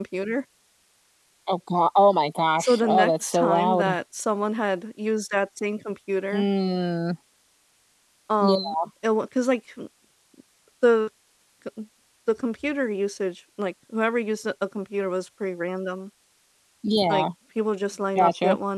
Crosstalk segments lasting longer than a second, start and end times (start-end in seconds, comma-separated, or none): 2.6-4.0